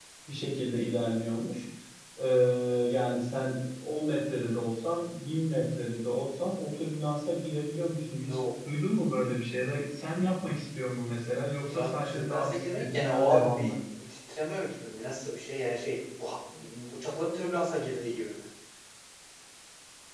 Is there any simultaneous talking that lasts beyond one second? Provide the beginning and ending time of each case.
11.6-13.7

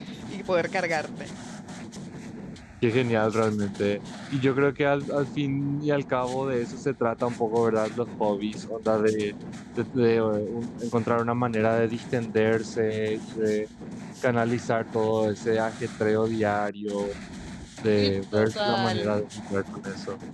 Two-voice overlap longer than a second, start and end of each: 18.0-19.2

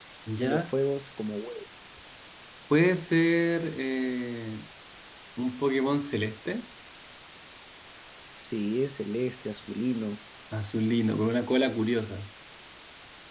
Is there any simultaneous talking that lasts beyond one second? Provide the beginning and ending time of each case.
none

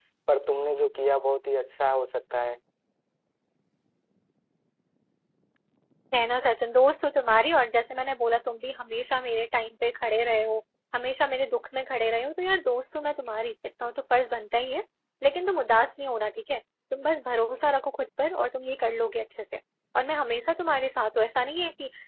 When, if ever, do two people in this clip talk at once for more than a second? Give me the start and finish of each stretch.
none

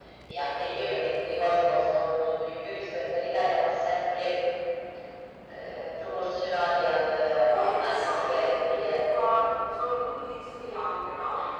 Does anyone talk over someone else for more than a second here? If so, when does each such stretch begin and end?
7.3-9.3

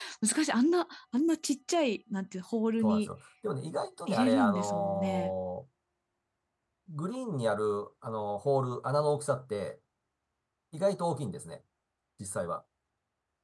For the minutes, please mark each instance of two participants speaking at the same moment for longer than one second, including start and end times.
4.1-5.3

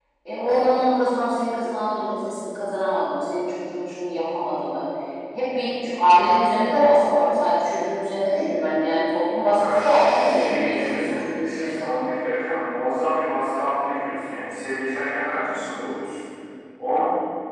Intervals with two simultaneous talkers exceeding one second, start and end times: 9.6-12.1

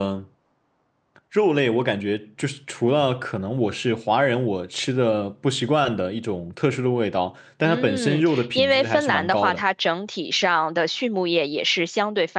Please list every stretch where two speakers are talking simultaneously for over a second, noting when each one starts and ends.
7.6-9.6

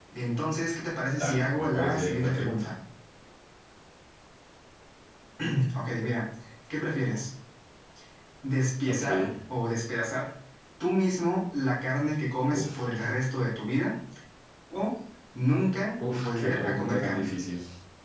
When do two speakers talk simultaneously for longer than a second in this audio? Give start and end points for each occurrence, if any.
1.1-2.6, 16.0-17.3

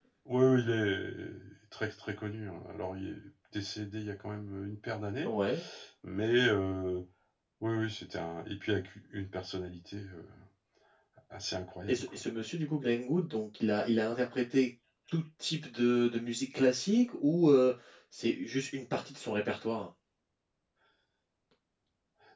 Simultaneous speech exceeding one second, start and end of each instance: none

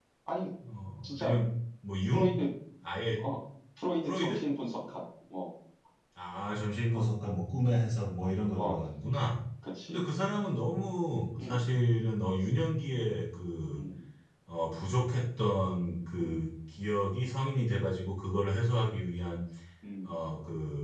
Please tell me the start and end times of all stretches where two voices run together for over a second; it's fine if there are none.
none

